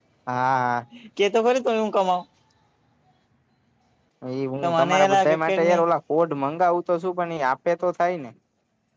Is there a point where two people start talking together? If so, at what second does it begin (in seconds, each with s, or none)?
4.6 s